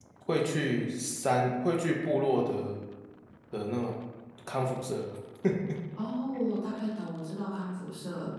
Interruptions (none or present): none